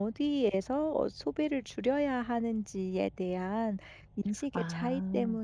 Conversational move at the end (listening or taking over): listening